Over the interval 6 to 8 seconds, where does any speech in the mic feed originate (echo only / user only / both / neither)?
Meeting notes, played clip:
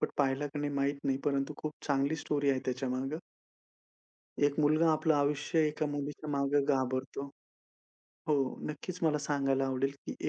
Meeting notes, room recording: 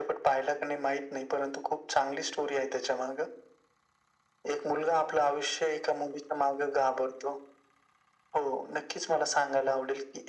echo only